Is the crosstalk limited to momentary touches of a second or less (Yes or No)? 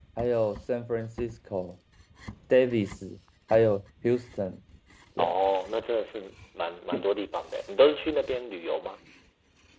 Yes